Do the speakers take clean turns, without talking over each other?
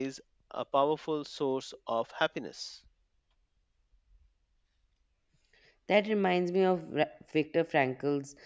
Yes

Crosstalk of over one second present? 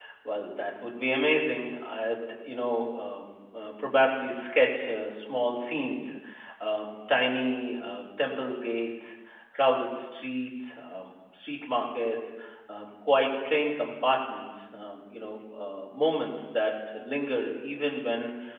No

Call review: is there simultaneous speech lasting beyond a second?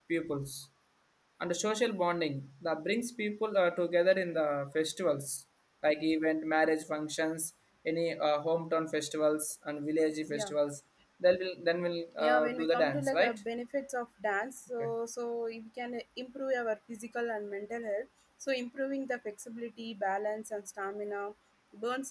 Yes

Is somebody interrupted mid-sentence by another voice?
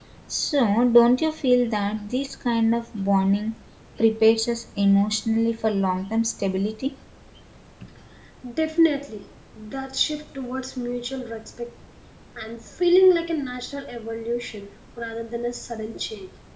No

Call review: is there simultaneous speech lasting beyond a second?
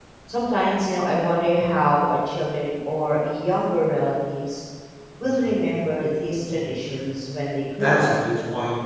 No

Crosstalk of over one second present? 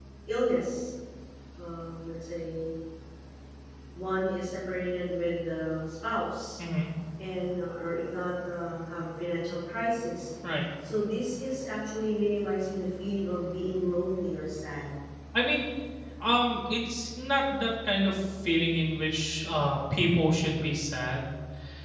No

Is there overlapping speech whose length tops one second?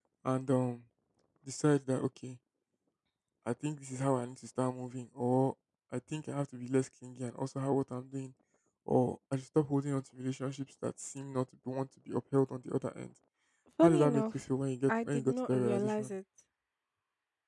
Yes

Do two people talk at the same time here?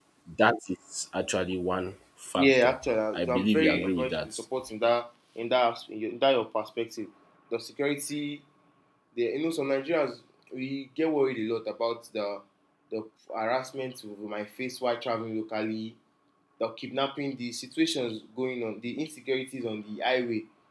Yes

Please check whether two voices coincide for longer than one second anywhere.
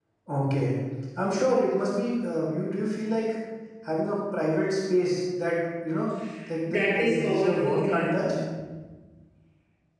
Yes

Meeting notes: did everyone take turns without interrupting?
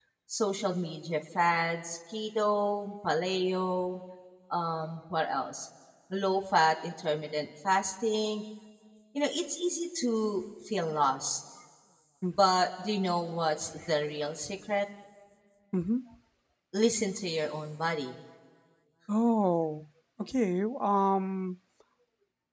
Yes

